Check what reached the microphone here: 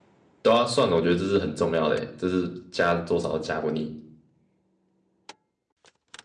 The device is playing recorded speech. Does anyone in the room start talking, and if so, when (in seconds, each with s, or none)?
0.4 s